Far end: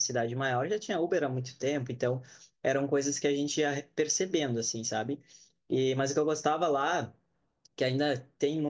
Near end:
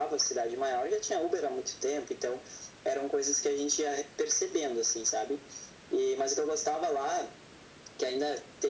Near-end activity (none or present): none